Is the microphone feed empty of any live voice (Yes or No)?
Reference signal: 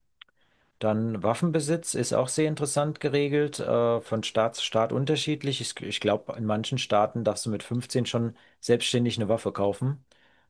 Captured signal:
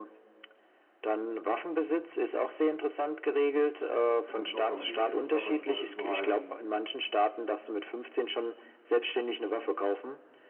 No